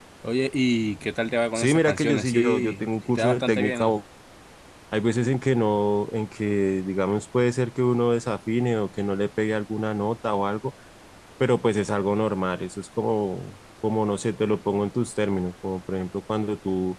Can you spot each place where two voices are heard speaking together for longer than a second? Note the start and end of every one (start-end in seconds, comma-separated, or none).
1.5-3.9